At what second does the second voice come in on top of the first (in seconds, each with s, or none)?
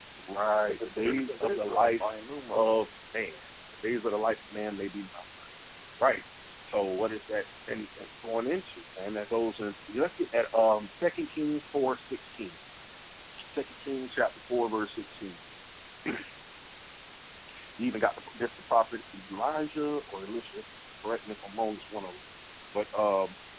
0.7 s